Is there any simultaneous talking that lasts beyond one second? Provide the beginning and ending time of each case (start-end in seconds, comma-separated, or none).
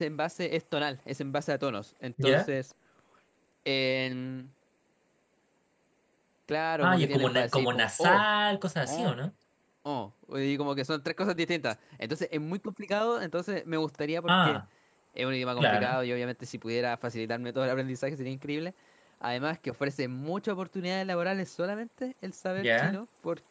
6.8-8.2